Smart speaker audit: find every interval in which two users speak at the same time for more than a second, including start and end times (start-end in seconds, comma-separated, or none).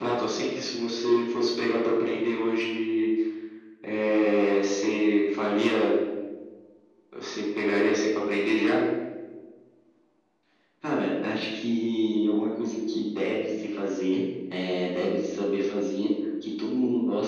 none